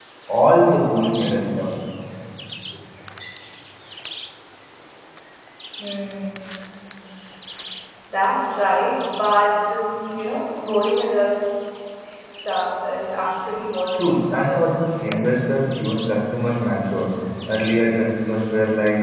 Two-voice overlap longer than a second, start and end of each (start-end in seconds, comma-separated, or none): 13.9-15.3